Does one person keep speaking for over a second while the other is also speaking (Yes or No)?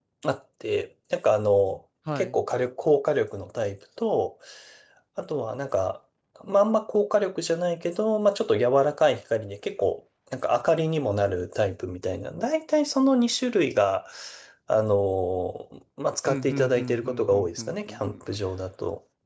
Yes